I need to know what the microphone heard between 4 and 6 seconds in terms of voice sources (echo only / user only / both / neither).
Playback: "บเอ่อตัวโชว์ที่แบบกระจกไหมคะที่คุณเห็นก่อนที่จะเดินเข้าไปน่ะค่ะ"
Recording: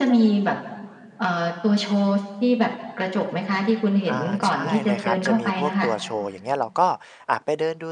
both